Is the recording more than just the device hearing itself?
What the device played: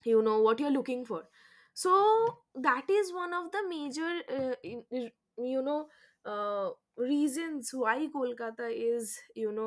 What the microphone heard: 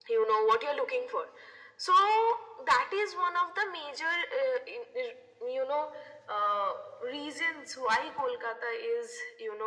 No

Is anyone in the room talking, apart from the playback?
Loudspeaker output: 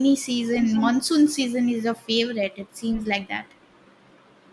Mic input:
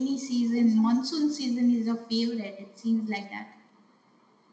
No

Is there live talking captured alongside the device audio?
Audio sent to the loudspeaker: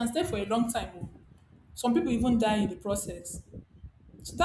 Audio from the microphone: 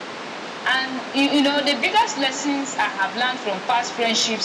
Yes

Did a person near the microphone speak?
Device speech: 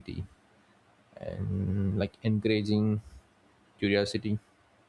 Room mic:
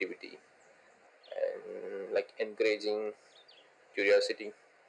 No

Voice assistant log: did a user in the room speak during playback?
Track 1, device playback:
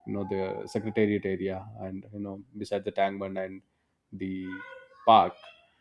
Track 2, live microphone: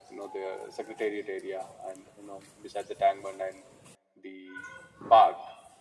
No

